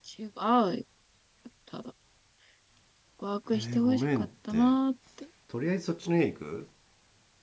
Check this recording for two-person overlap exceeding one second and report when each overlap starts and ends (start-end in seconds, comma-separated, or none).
3.5-4.7